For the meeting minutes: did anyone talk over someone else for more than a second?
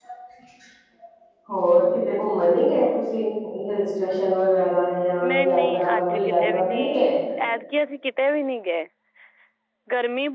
Yes, from 5.2 s

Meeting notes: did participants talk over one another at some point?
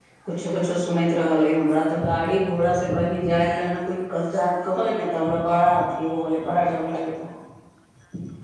No

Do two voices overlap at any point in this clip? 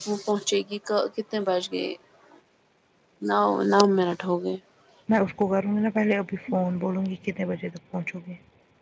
No

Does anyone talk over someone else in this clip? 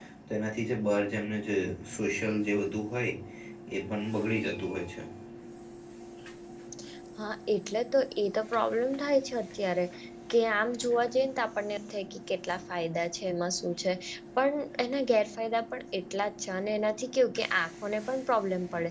No

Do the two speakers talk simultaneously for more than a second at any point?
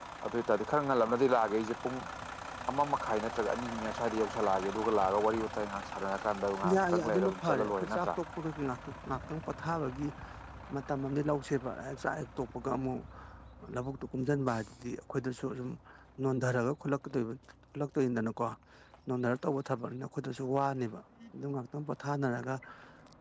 Yes, from 6.6 s

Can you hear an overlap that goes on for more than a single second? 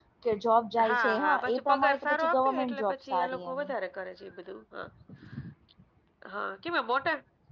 Yes, from 0.9 s

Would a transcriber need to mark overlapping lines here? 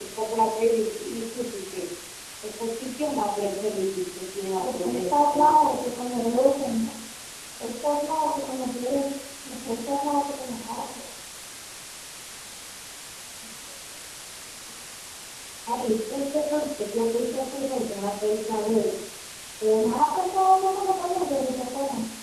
Yes, from 4.6 s

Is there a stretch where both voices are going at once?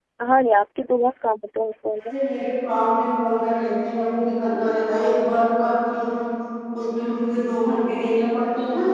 No

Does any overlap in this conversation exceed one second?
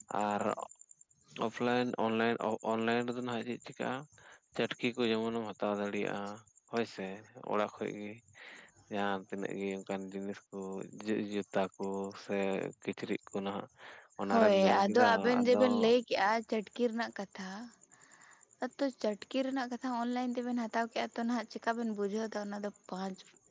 Yes, from 14.3 s

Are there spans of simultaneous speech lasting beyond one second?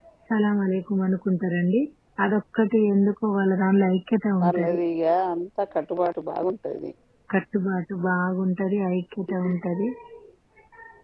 No

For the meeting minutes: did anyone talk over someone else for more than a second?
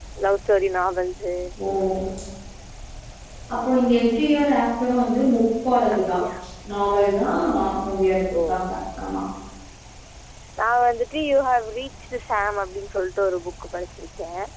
No

